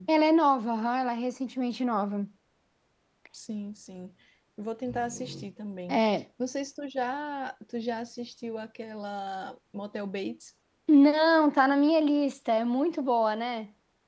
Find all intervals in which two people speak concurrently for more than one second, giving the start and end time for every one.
none

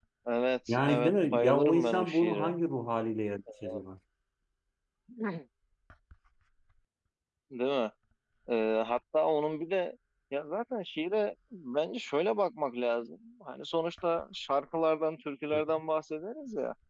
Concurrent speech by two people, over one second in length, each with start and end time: 0.7-2.5

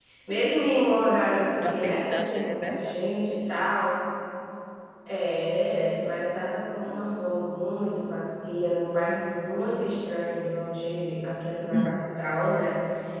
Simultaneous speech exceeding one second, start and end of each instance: 1.6-3.0

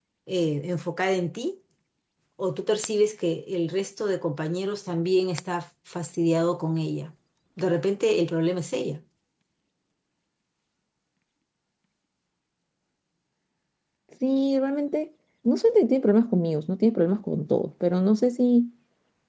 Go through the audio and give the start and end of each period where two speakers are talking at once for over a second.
none

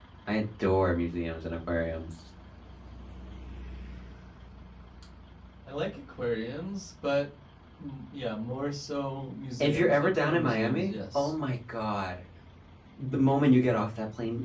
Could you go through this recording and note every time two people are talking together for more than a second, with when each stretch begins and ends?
9.6-11.3

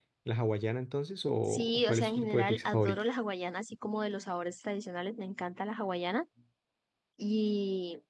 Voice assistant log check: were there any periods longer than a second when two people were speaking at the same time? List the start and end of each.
1.5-3.0

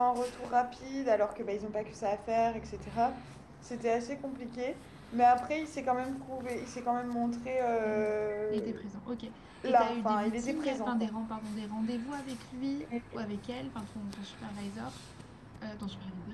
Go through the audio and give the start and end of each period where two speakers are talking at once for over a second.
9.7-11.1

